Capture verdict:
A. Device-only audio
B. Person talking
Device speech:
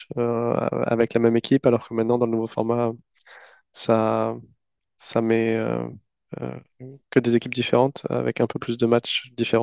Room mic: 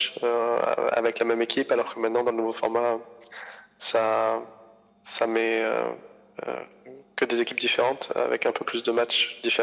A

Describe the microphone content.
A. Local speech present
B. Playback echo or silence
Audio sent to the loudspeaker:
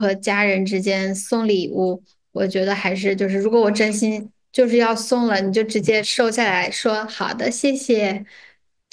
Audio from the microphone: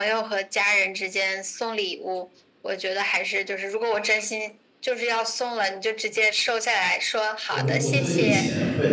A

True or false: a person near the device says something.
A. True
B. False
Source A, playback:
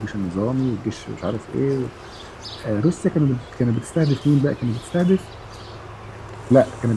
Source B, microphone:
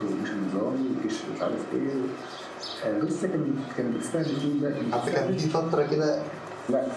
A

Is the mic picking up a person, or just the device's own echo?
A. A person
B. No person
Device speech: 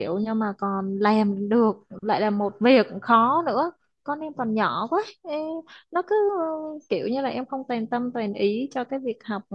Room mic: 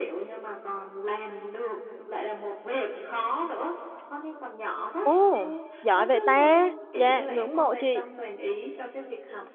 A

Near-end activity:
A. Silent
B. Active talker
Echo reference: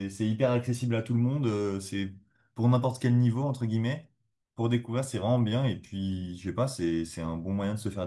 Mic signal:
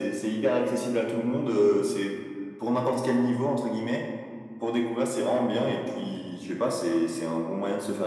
A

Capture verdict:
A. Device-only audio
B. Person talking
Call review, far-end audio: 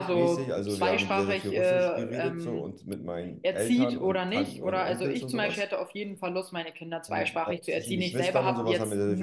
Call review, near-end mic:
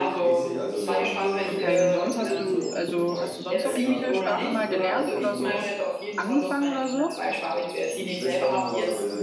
B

